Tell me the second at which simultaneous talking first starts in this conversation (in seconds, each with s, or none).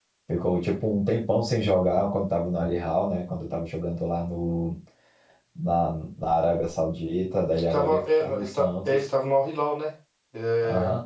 7.5 s